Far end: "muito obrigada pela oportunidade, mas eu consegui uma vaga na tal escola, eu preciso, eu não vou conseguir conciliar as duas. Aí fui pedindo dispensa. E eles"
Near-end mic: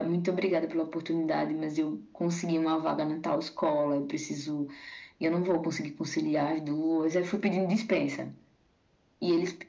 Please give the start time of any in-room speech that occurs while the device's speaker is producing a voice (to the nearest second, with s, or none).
none